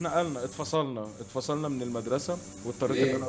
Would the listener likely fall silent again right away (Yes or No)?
Yes